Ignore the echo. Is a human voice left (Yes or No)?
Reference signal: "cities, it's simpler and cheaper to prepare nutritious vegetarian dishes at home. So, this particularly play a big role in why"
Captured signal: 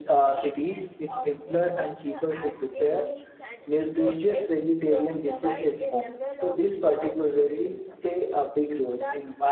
Yes